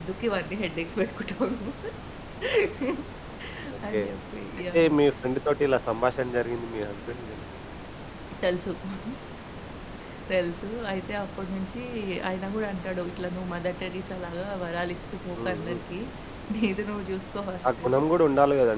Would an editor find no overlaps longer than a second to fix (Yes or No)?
Yes